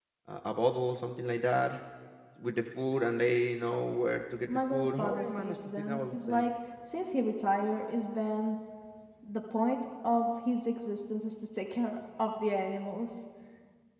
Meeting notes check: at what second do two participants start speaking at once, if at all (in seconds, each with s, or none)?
4.5 s